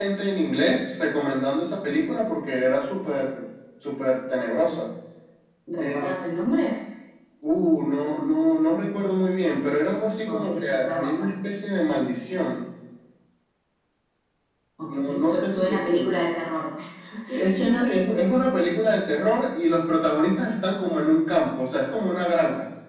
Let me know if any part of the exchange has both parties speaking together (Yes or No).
Yes